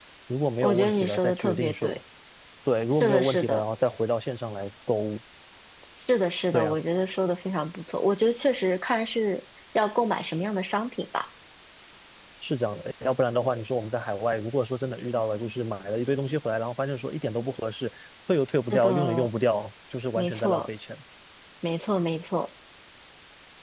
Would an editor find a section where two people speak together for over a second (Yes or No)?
Yes